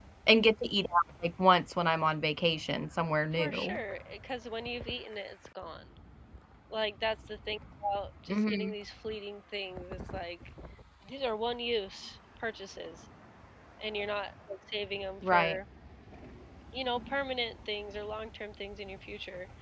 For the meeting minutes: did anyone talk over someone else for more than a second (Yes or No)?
No